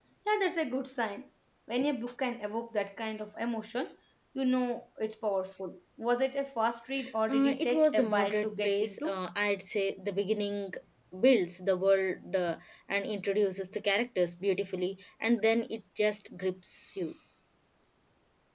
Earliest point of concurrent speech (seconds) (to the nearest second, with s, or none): 7 s